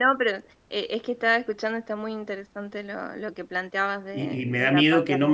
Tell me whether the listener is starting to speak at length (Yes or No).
Yes